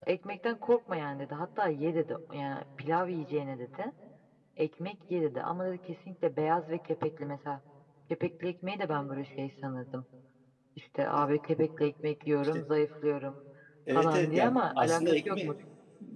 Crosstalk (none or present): present